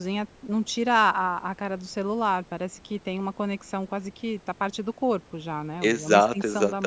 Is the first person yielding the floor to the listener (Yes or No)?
Yes